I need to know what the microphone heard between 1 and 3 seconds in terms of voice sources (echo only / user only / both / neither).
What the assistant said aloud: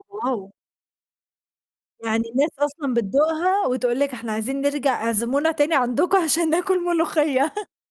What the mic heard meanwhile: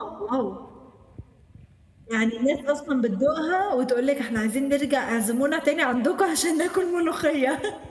echo only